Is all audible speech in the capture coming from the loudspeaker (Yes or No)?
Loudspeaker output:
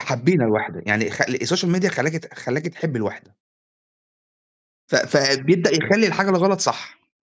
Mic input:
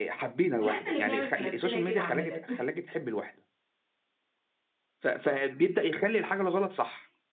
No